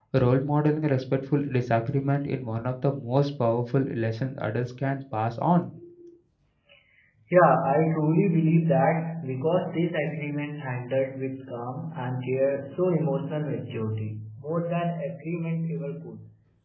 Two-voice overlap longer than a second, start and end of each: none

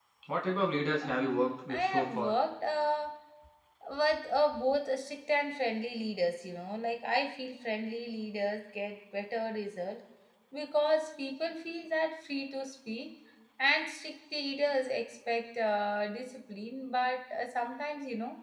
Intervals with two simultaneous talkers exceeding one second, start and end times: 1.0-2.3

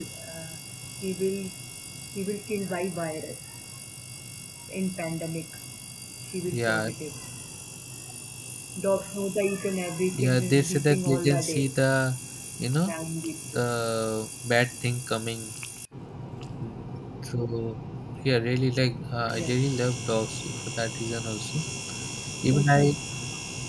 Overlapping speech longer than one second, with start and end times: 10.1-11.7

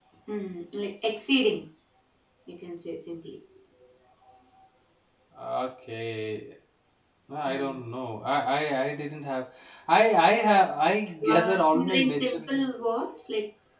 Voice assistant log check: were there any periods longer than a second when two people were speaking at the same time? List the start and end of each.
11.3-12.6

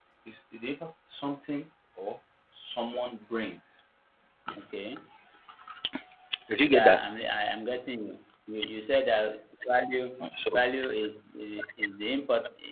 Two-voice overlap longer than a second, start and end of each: none

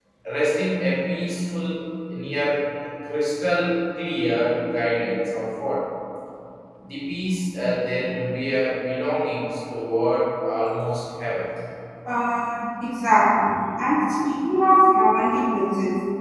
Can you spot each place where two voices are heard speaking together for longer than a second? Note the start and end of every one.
none

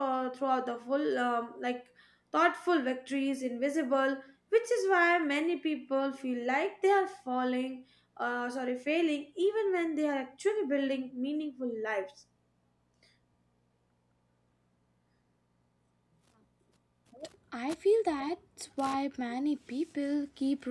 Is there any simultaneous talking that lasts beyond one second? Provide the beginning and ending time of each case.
none

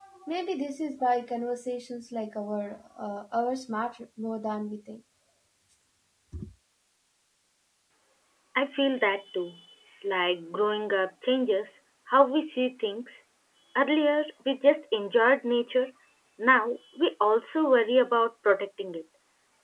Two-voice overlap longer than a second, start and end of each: none

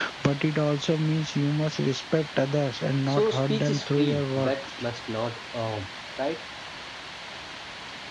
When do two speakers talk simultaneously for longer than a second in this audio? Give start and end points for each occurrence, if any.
3.1-4.5

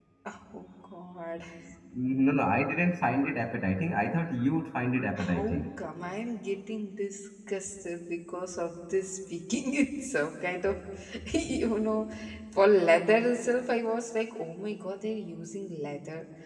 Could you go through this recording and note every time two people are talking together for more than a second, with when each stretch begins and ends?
none

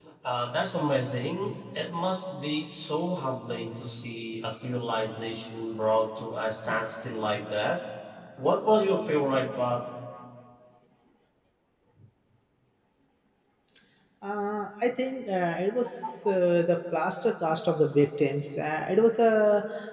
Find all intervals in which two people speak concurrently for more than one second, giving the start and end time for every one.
none

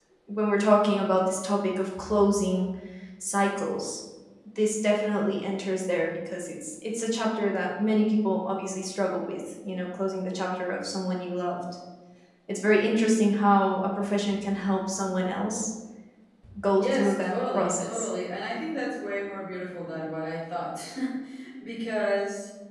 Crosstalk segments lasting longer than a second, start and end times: 16.8-18.1

